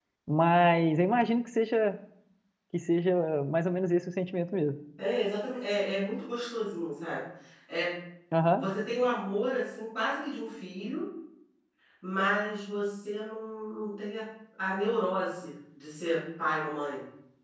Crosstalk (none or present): none